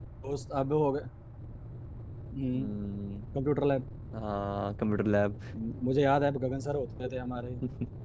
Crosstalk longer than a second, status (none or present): none